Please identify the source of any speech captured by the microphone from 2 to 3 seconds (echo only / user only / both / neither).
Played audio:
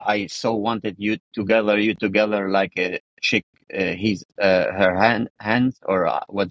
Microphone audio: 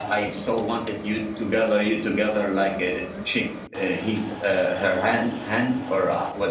echo only